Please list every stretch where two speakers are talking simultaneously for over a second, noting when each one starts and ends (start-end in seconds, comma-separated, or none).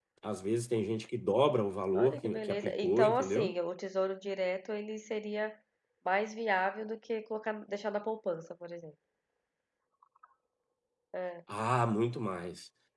2.0-3.5